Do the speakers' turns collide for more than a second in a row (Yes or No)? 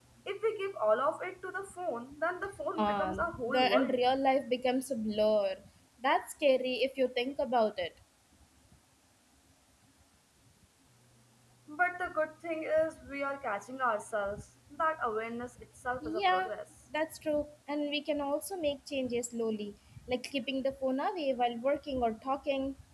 Yes